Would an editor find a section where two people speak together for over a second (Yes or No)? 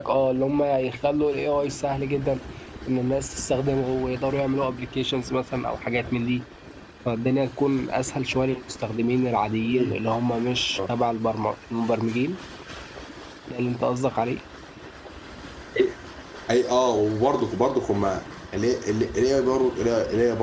No